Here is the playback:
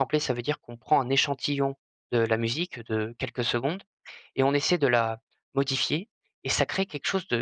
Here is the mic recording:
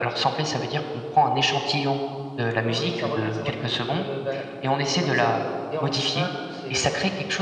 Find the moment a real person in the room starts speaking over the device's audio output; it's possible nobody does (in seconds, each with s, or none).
2.6 s